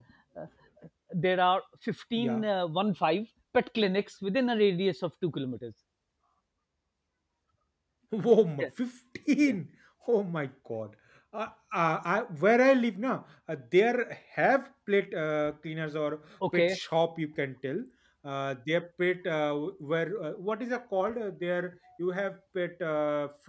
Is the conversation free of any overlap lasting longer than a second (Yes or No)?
Yes